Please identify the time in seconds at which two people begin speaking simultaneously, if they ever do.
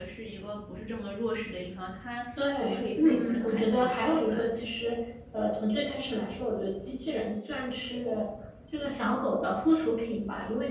2 s

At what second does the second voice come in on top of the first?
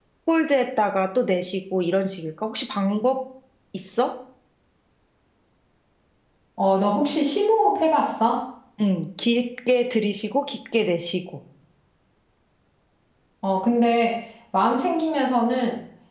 none

